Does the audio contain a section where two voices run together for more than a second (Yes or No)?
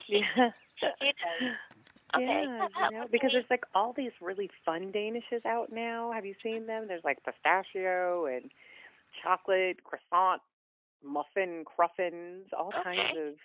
Yes